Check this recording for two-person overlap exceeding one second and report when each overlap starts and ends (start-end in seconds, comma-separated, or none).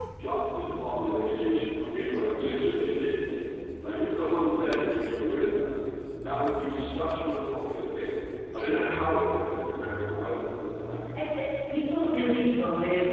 none